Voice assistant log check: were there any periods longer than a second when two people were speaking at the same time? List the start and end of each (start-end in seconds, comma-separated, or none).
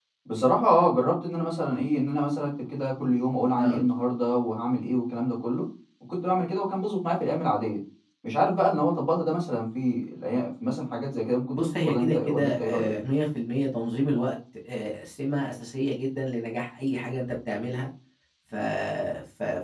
11.5-12.9